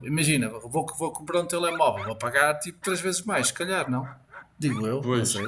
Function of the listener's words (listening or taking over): taking over